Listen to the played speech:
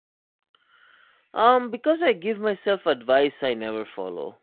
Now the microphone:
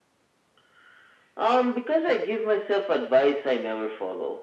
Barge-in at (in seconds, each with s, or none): none